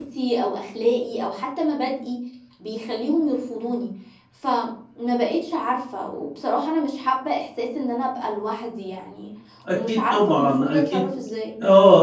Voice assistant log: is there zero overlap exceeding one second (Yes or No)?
No